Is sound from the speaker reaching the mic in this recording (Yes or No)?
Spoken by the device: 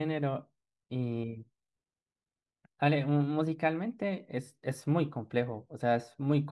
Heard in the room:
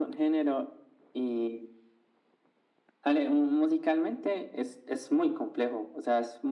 Yes